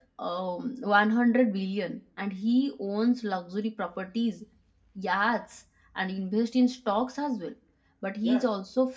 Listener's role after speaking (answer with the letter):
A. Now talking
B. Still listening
B